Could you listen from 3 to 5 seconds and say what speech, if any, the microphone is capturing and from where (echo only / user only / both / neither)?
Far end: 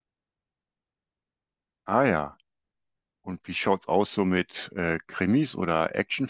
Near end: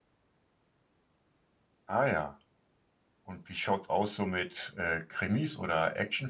echo only